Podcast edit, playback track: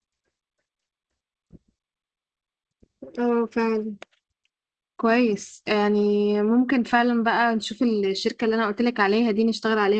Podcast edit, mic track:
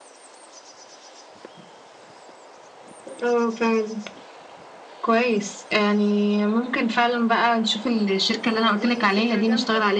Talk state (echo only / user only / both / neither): both